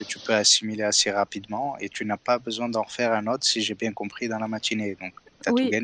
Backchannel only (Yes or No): No